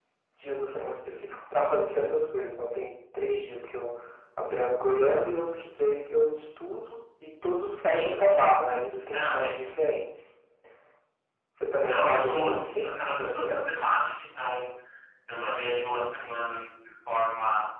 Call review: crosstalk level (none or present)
present